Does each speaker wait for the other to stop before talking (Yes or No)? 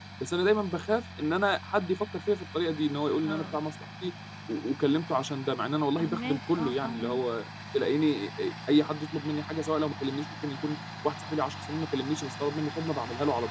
No